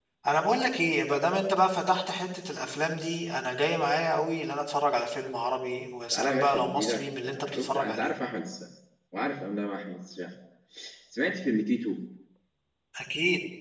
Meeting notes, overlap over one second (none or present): present